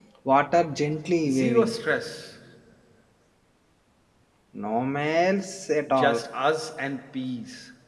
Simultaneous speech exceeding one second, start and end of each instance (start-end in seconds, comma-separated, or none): none